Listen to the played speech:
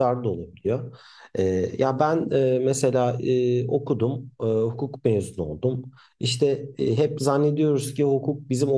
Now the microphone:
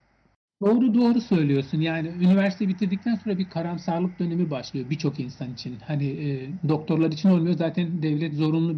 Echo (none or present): none